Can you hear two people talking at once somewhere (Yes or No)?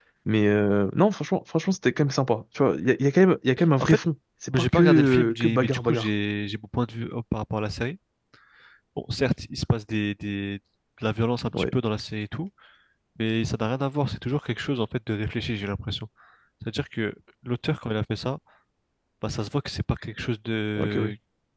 Yes